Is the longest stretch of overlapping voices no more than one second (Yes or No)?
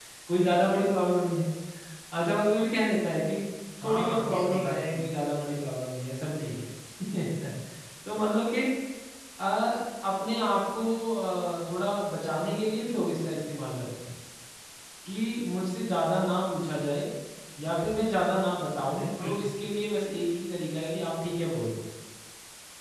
No